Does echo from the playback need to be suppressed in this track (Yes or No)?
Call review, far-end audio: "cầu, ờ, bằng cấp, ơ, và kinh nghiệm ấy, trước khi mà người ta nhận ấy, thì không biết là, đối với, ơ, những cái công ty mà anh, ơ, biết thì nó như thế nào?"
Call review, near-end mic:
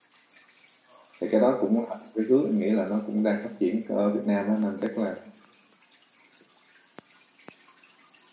No